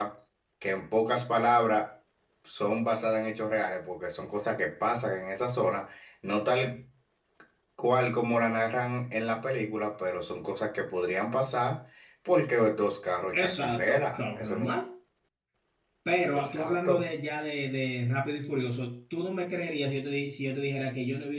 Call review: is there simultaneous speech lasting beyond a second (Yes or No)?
Yes